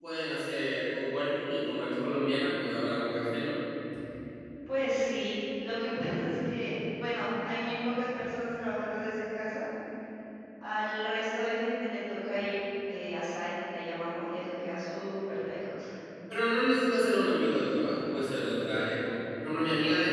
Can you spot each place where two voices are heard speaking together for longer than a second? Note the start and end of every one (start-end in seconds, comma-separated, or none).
none